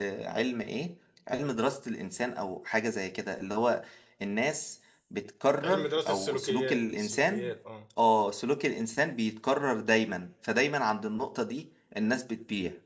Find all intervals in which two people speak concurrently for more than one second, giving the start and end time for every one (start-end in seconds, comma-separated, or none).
5.6-7.5